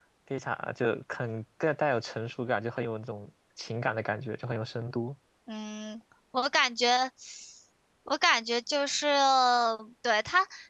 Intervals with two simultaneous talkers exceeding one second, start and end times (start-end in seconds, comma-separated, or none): none